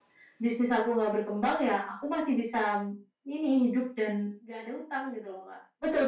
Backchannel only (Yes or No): No